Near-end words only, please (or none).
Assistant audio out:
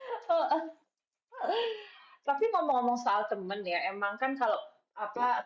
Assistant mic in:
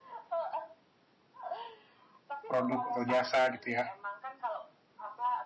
produk atau jasa gitu ya.